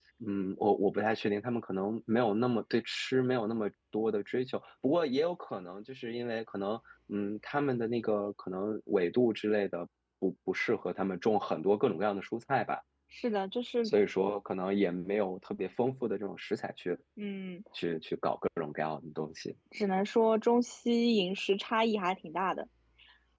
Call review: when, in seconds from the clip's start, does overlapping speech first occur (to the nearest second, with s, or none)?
none